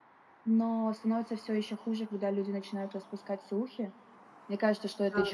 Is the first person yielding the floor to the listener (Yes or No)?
No